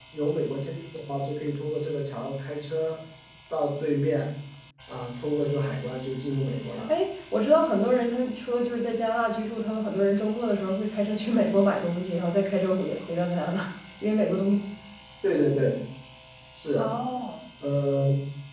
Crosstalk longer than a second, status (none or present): none